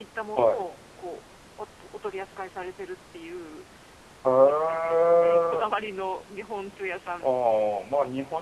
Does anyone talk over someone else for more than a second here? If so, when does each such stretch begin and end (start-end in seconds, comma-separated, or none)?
4.4-5.7